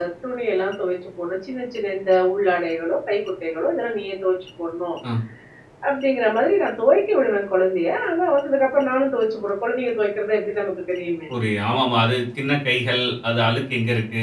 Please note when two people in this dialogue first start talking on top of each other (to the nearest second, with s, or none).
none